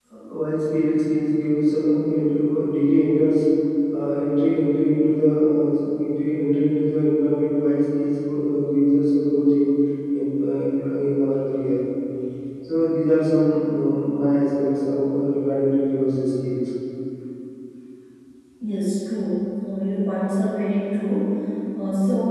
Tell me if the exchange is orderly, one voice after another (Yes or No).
Yes